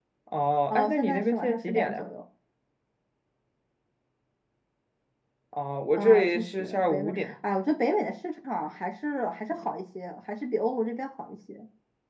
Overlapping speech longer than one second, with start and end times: 0.7-2.1, 6.0-7.3

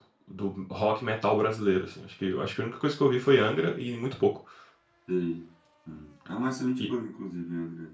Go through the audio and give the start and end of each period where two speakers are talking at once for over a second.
none

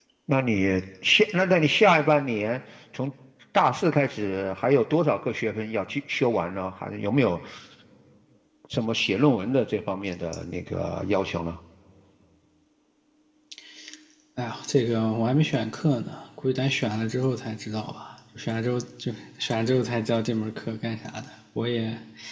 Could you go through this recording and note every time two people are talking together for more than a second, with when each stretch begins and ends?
none

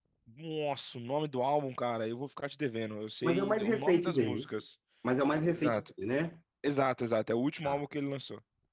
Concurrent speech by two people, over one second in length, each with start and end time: 3.2-4.5

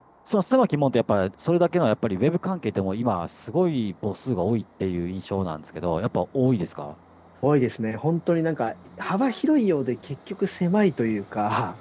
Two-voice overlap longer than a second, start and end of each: none

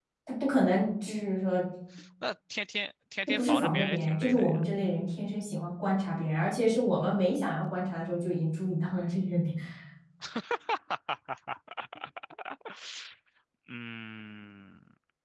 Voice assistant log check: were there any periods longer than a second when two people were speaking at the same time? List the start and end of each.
3.3-4.7

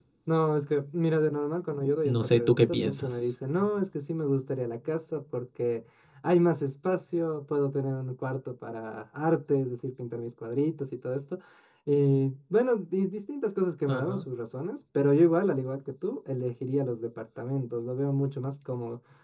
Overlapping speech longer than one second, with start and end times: 2.0-3.3

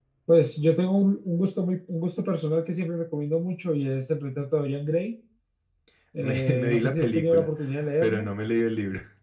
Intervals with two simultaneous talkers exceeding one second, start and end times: 6.2-7.5

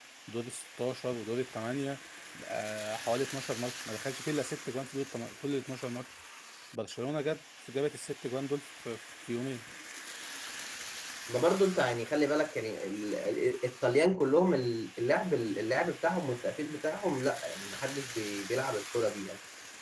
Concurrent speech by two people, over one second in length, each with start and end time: none

